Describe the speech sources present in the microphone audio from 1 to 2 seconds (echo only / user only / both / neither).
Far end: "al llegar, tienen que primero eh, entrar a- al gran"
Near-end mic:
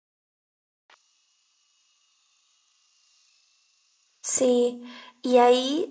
neither